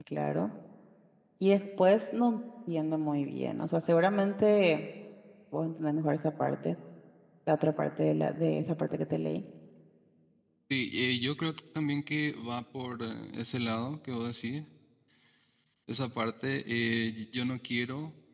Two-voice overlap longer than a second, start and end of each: none

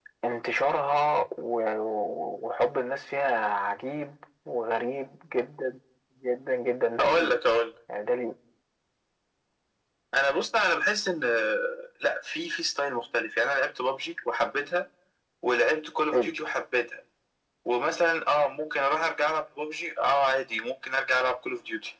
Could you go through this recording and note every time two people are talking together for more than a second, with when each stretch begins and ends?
none

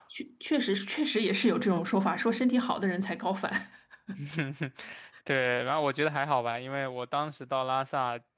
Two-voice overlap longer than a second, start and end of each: none

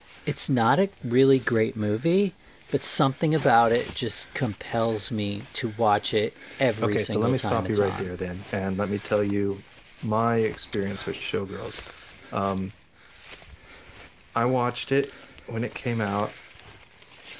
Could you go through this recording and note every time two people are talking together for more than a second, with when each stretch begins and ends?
6.8-8.1

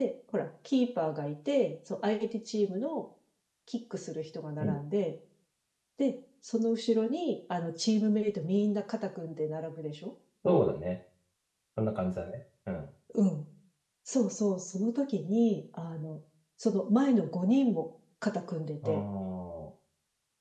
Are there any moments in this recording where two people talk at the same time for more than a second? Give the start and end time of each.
none

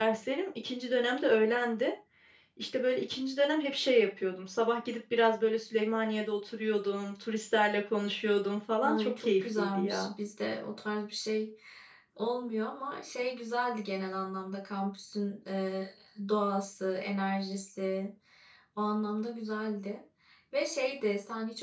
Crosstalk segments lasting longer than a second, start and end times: 8.8-10.1

